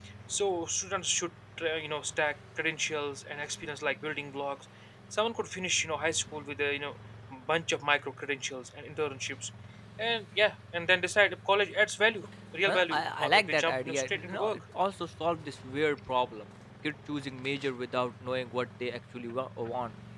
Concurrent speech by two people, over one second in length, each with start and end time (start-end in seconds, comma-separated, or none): 12.7-14.6